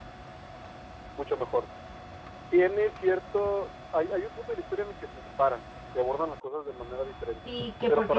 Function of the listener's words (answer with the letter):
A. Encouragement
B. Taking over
B